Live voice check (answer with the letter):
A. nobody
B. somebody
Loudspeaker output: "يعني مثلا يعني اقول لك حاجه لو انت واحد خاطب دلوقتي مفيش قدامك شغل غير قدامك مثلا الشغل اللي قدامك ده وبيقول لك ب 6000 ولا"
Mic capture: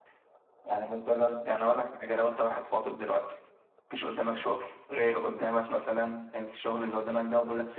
A